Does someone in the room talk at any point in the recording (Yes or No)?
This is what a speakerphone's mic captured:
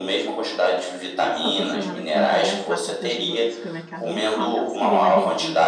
Yes